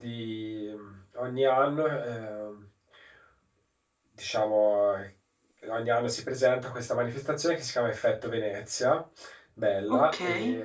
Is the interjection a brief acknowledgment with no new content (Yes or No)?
Yes